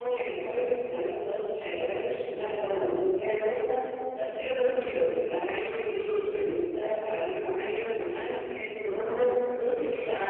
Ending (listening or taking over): taking over